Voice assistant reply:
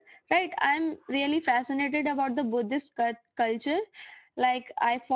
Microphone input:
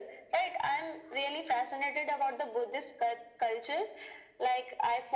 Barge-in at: none

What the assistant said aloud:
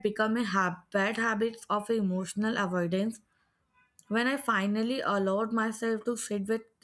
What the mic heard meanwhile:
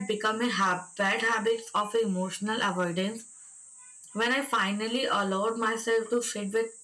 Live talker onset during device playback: none

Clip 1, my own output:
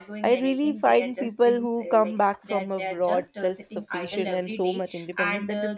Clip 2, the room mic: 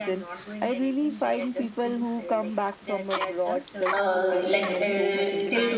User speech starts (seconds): 3.9 s

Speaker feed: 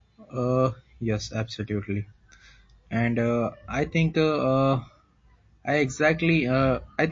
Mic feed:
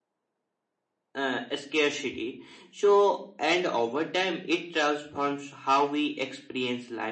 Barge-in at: 1.2 s

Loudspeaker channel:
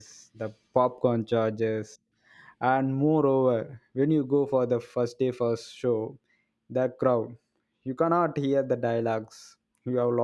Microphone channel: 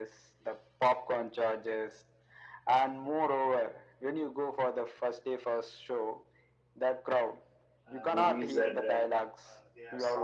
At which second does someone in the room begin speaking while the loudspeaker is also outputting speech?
7.9 s

